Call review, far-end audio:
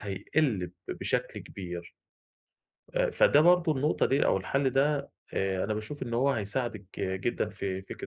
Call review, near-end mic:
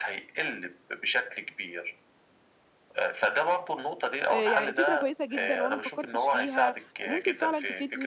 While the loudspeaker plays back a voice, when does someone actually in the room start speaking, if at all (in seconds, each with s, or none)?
4.3 s